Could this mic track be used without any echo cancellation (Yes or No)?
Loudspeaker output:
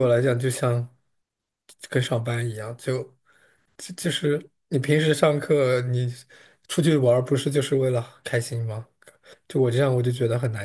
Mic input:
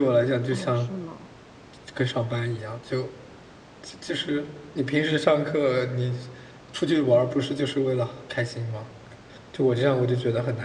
No